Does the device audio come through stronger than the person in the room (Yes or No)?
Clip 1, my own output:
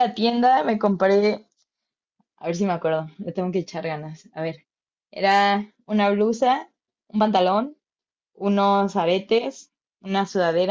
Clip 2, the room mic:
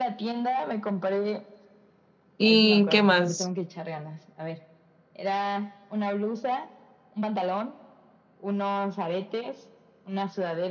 No